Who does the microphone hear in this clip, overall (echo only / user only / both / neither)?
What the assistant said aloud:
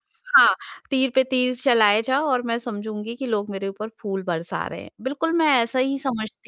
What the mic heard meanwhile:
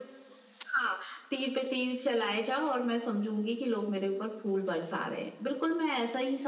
echo only